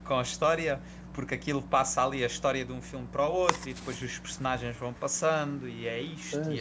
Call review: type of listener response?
taking over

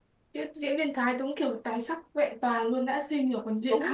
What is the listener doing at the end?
taking over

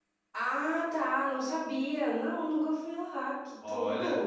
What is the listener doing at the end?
taking over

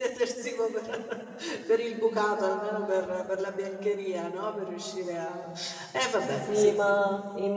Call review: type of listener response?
taking over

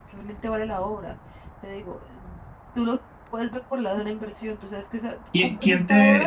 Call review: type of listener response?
taking over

